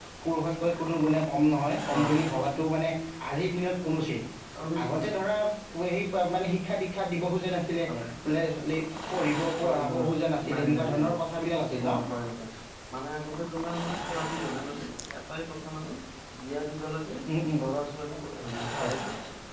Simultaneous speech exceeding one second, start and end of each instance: 9.6-11.1

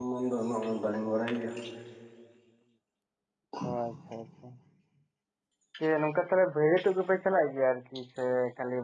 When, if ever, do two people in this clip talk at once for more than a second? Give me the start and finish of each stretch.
none

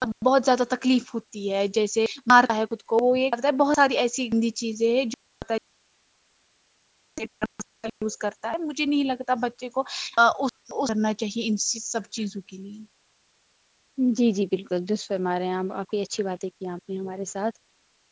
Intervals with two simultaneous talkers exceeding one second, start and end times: none

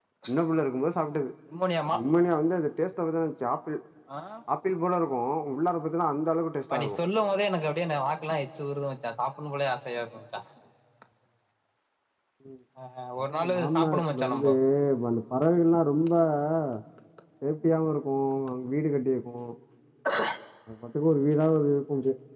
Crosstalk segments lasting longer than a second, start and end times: 13.2-14.5

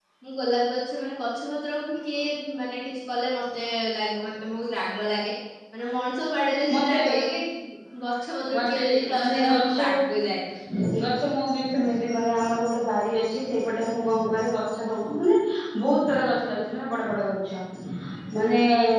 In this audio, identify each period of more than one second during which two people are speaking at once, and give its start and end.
8.5-10.1

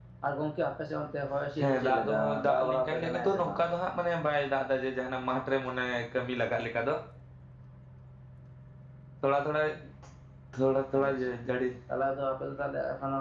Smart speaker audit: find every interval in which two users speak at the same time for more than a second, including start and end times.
1.6-3.6

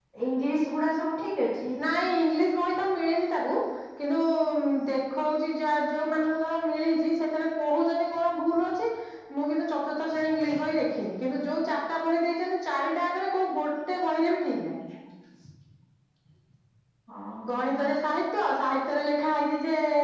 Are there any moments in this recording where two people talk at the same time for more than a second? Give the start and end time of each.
none

